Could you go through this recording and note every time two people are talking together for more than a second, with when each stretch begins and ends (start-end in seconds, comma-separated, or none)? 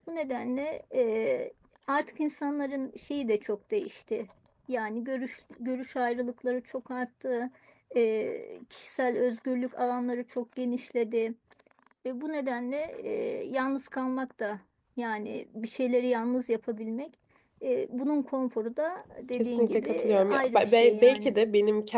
19.3-21.3